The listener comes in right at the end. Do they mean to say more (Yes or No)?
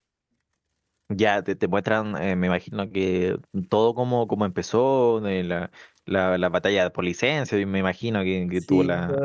Yes